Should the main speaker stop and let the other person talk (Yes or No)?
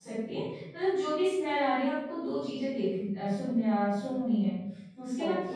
No